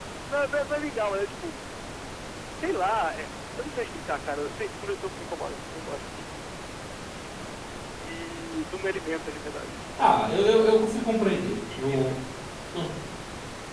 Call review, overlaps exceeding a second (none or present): none